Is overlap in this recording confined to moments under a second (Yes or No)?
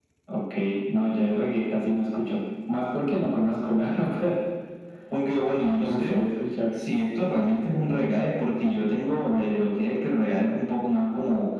Yes